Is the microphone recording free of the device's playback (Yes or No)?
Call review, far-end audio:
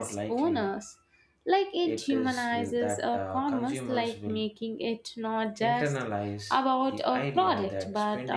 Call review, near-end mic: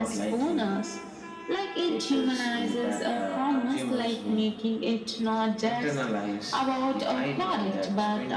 No